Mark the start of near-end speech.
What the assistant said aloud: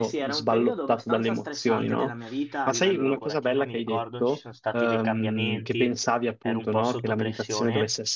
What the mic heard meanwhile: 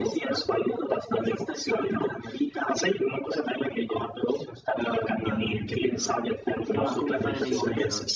5 s

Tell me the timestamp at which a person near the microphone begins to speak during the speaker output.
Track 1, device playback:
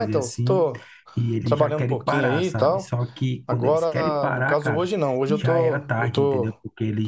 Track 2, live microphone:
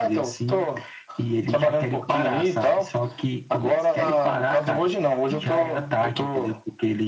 none

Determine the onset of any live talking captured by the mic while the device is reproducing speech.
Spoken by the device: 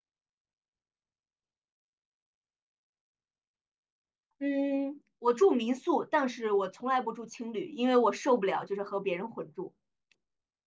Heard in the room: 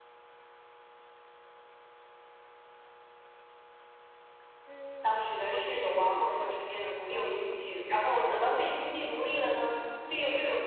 5 s

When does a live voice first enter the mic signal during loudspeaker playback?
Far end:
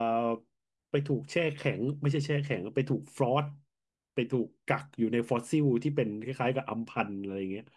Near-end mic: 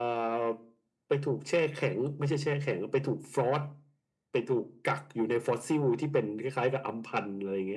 none

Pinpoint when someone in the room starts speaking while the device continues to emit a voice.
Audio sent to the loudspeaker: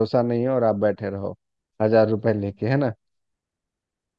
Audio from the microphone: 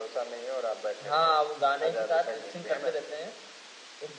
1 s

